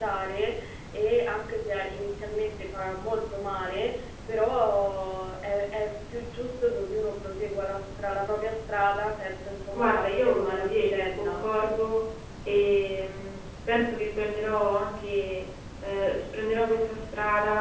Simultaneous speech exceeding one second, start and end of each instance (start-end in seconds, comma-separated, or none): 9.8-11.4